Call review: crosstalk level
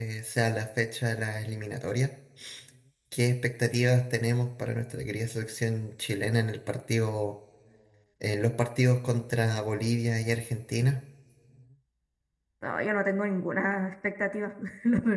none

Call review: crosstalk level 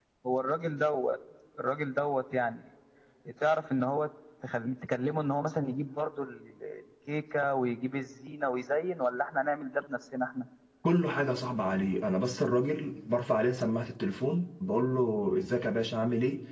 none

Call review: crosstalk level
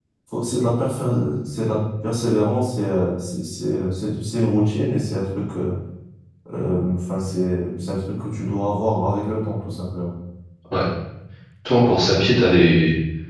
none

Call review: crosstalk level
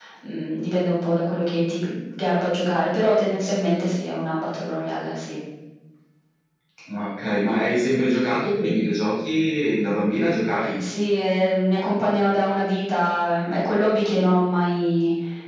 none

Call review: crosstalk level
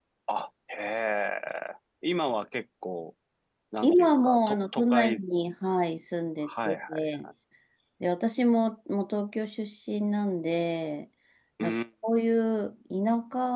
present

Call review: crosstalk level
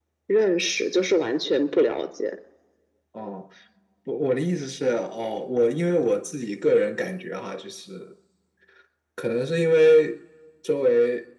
none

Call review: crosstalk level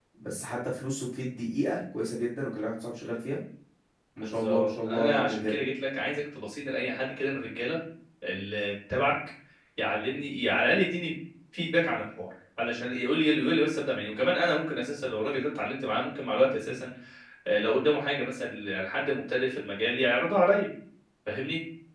present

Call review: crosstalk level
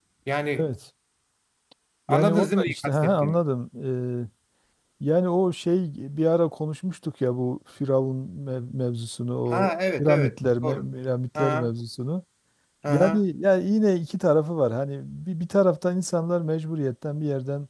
present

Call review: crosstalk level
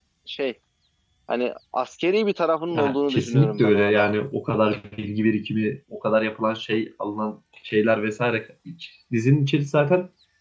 present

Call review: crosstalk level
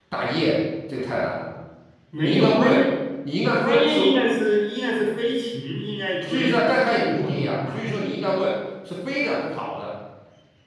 present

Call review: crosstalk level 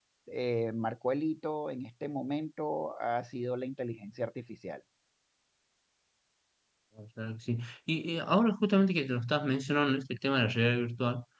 none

